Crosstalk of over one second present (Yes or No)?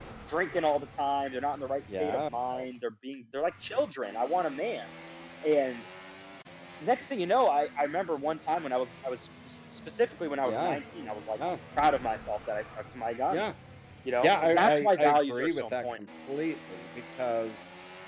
Yes